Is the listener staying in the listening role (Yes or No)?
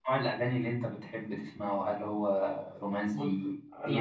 No